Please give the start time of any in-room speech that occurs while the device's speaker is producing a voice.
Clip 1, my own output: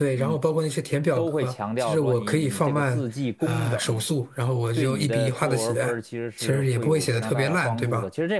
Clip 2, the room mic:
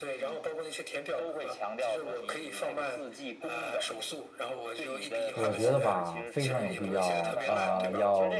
5.3 s

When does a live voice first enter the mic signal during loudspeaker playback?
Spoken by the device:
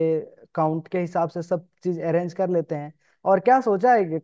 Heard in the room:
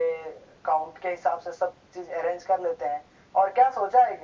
none

